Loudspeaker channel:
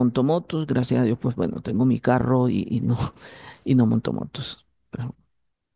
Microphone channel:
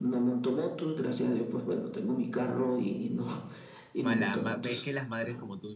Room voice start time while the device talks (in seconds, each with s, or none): 4.0 s